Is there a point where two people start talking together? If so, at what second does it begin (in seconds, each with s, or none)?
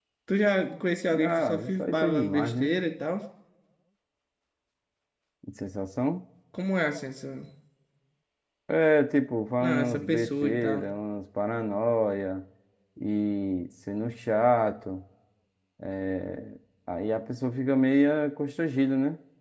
1.2 s